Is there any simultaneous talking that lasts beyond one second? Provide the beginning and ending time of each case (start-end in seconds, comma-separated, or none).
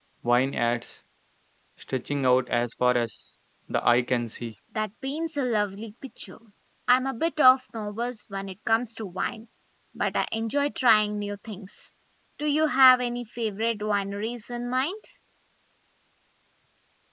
none